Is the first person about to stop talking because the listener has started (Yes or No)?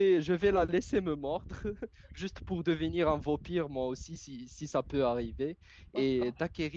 No